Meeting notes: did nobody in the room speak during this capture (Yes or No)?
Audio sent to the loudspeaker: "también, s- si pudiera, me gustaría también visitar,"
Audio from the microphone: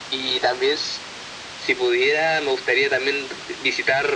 Yes